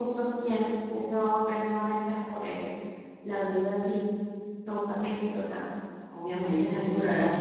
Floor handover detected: Yes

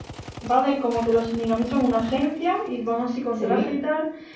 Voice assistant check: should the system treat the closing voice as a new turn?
No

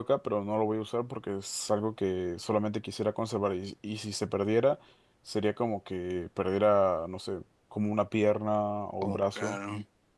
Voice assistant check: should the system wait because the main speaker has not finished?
Yes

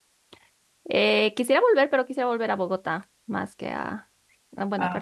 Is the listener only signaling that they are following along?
Yes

